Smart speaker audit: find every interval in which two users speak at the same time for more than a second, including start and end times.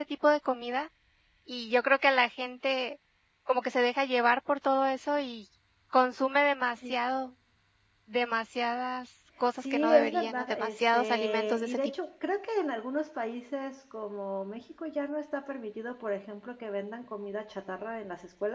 9.7-11.8

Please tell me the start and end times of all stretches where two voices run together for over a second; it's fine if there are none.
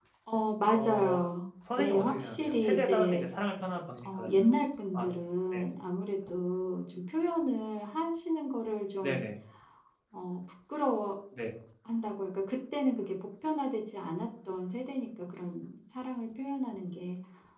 1.8-3.3

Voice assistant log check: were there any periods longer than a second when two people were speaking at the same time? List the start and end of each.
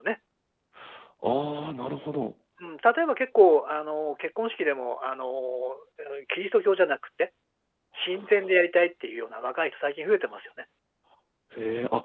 none

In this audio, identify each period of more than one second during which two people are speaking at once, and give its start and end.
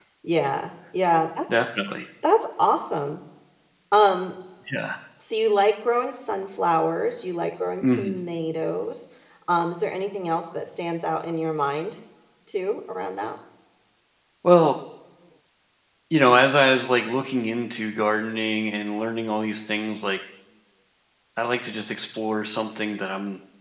none

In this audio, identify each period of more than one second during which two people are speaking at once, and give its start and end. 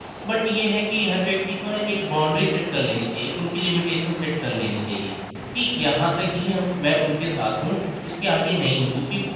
none

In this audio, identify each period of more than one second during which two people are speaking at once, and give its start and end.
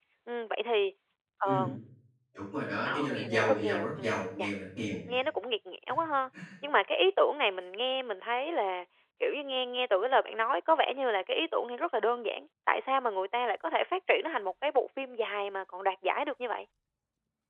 2.9-4.5

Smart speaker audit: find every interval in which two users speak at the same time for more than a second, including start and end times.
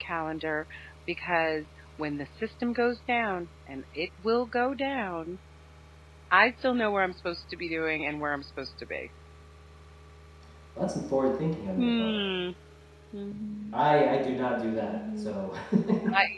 none

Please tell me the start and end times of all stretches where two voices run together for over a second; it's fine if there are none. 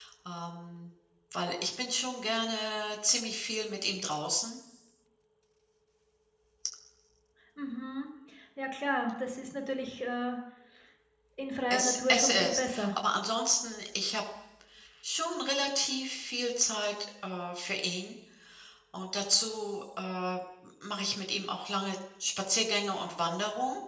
11.7-12.9

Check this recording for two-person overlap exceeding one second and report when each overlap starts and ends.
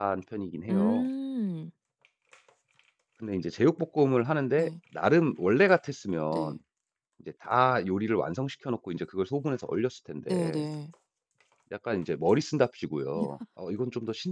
none

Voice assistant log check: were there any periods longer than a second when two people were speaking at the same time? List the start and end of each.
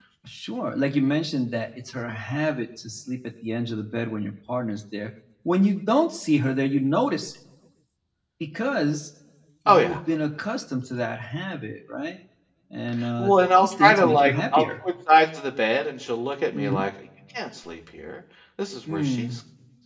13.2-14.6

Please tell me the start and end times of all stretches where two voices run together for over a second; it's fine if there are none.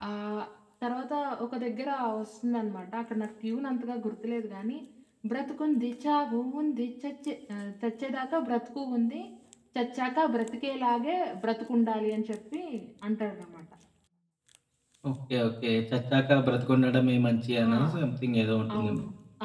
none

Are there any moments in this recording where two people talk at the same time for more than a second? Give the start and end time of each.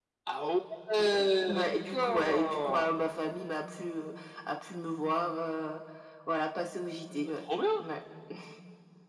1.5-2.9

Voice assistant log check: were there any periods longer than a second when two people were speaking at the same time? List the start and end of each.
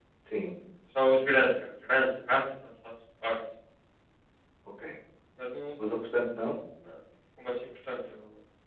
none

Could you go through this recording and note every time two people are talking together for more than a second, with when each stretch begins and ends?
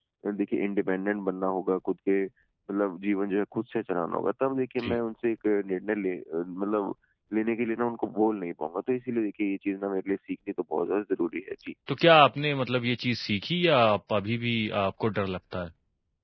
none

